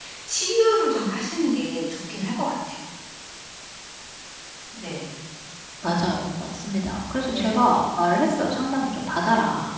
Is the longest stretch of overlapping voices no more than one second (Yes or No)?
Yes